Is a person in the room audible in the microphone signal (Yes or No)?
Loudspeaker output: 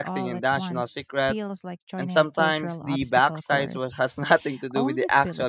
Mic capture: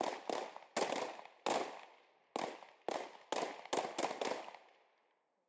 No